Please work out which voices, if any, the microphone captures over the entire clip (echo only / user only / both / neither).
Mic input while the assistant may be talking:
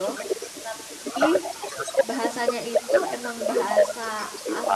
both